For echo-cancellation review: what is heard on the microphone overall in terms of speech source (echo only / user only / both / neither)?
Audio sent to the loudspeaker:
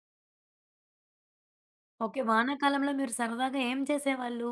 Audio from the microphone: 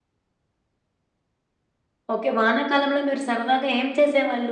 echo only